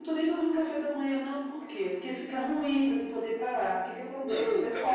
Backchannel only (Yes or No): No